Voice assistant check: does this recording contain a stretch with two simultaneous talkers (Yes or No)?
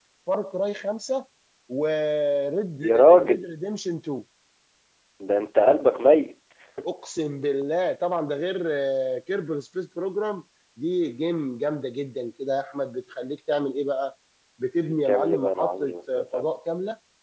Yes